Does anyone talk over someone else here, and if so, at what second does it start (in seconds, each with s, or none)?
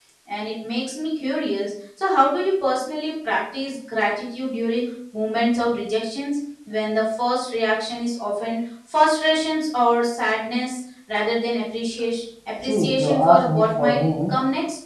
12.6 s